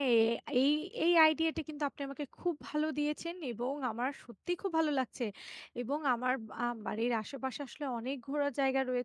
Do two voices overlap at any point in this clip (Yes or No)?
No